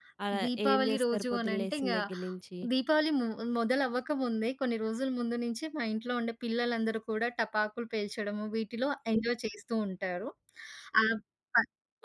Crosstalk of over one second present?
Yes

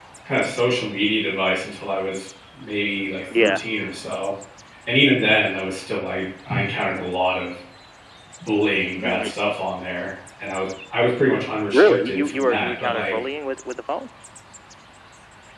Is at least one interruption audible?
Yes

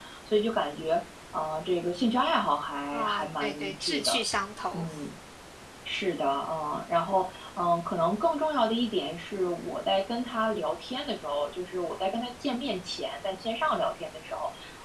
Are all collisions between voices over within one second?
No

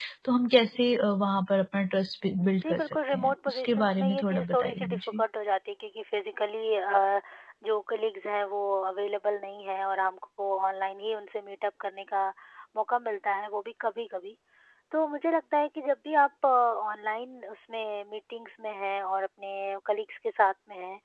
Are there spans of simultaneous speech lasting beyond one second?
Yes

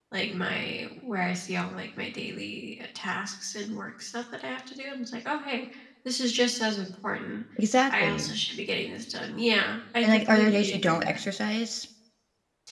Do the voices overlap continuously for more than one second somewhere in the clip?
Yes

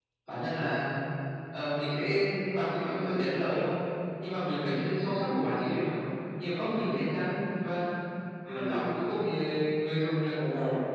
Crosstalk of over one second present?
No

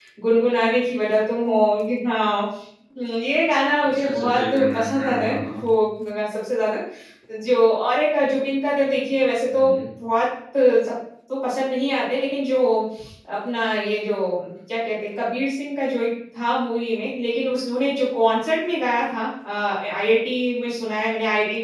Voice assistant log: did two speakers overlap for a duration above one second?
Yes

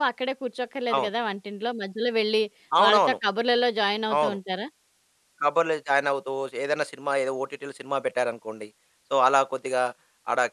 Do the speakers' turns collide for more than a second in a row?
No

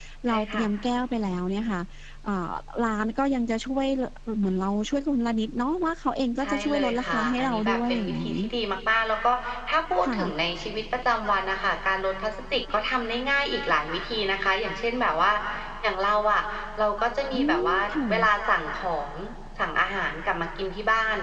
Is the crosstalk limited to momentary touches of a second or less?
No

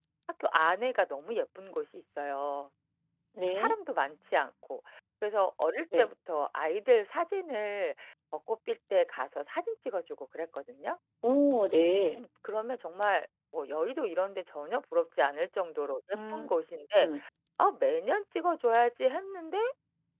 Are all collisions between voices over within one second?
Yes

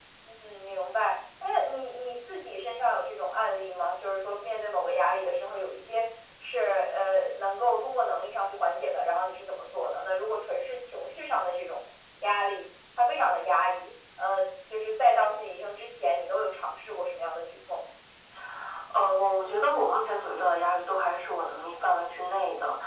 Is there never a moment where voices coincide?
Yes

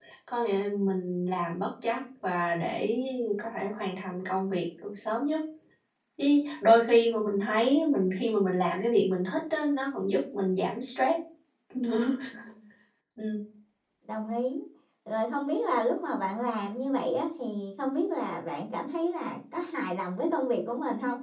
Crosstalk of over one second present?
No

